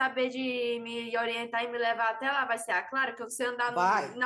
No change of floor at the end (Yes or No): Yes